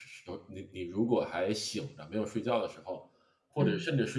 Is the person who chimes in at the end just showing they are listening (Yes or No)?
Yes